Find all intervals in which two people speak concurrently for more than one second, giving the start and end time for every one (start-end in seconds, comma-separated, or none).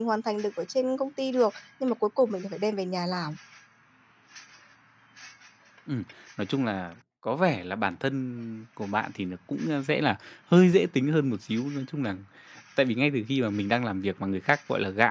none